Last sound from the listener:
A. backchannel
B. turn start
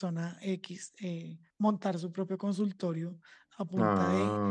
A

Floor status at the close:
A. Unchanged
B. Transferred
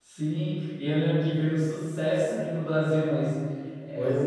A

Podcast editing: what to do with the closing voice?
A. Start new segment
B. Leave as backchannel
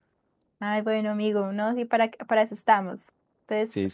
B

